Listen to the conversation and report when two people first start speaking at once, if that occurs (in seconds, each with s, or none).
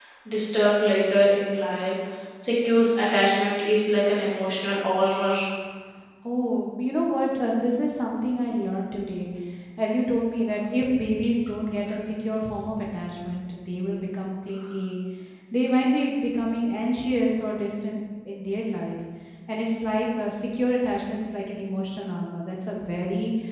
none